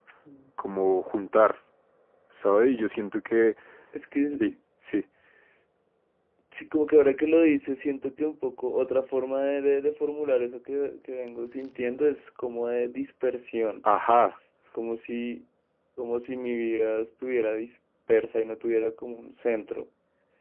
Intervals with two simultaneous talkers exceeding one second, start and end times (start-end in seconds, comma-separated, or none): none